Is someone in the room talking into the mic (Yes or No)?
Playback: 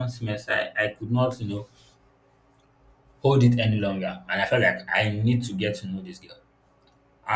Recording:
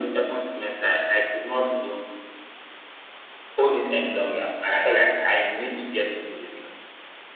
No